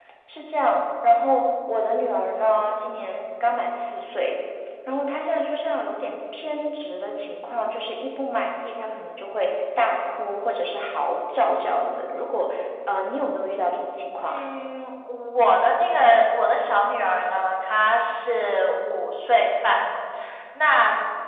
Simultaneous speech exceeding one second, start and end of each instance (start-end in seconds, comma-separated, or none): none